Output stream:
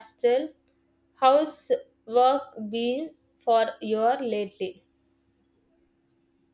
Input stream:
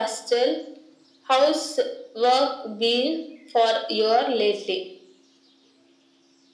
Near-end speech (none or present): none